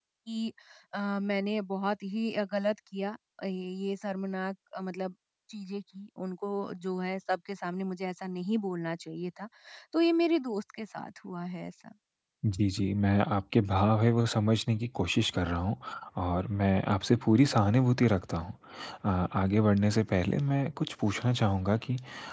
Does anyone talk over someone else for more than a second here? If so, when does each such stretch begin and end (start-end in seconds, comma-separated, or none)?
none